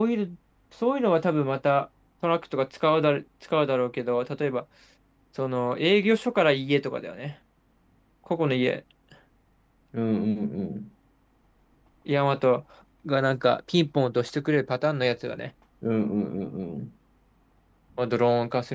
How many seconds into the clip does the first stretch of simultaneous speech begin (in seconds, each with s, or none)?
none